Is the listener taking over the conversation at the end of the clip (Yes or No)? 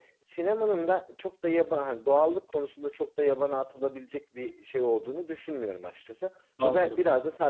No